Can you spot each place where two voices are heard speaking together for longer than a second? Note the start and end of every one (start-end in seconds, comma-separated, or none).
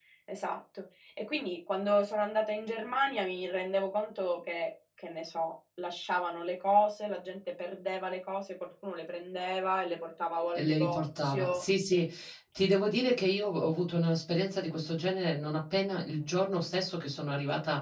10.6-12.1